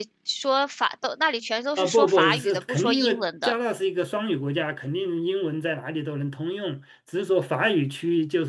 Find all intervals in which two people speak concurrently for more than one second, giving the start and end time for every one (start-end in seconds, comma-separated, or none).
1.8-3.6